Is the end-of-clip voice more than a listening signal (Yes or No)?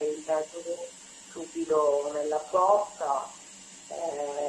Yes